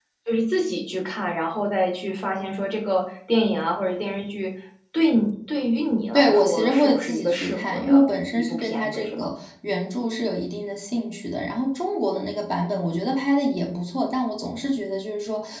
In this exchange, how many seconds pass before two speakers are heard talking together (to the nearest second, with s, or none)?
6 s